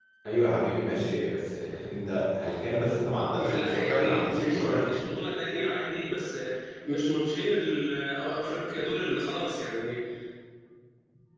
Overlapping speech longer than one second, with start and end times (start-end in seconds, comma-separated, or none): 3.4-5.0